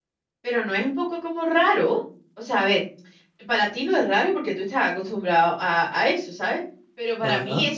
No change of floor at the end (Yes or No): Yes